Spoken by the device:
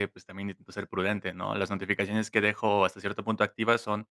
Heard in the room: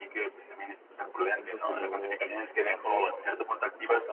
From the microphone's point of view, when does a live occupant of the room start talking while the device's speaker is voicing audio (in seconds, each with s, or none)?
1.0 s